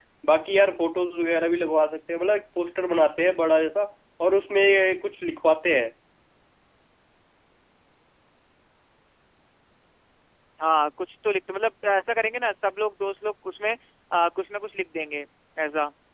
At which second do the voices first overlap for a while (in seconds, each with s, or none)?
none